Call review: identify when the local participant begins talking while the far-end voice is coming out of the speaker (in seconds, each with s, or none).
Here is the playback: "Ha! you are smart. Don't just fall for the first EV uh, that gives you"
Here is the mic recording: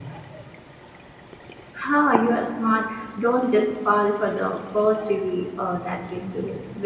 none